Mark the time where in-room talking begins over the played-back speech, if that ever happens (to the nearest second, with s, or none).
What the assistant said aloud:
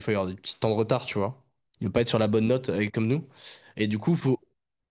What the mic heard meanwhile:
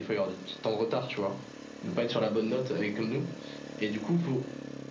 none